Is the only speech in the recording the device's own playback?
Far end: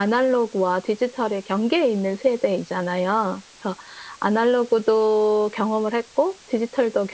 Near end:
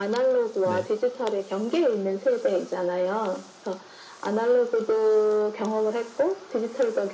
No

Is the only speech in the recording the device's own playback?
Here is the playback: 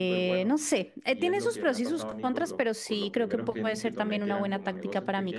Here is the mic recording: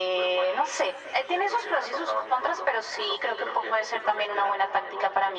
Yes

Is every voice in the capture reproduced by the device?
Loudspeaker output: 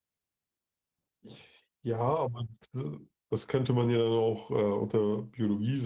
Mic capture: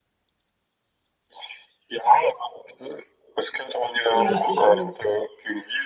No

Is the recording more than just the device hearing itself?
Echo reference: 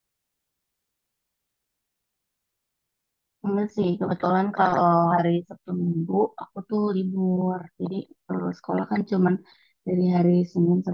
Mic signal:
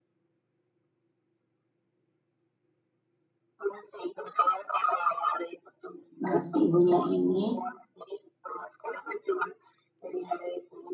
Yes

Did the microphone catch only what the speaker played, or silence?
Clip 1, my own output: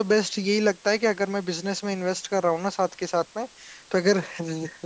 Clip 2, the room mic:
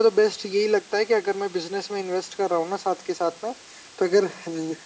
Yes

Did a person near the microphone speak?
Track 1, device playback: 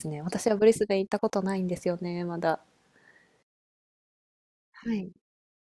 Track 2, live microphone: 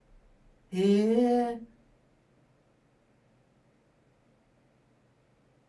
Yes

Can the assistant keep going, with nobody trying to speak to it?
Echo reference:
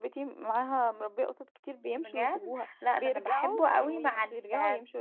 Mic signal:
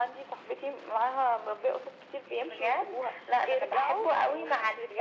Yes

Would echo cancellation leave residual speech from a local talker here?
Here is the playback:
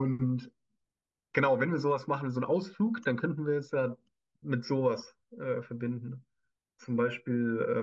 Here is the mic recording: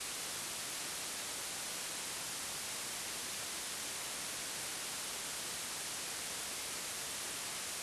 No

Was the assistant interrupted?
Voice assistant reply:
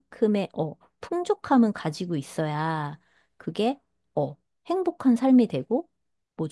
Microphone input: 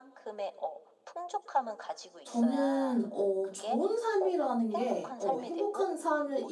Yes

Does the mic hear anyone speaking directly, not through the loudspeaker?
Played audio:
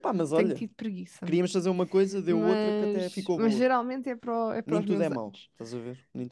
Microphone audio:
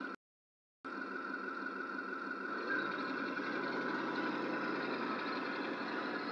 No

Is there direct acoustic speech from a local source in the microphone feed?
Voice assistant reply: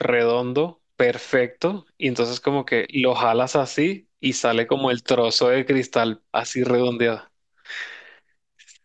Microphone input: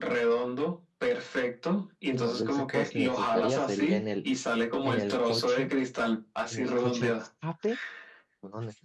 Yes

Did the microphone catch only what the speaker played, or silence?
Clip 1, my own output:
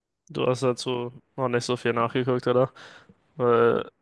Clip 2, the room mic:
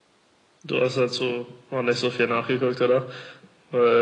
Yes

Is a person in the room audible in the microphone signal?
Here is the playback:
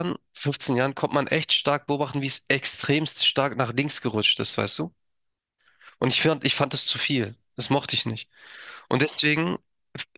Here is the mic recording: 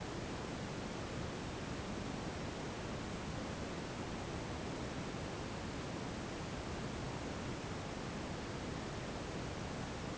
No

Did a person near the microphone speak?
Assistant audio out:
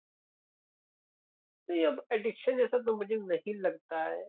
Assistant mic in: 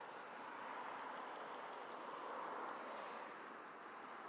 No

